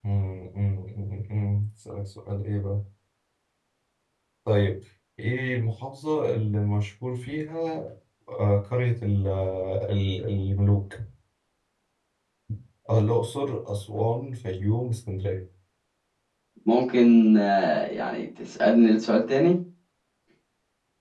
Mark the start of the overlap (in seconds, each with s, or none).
none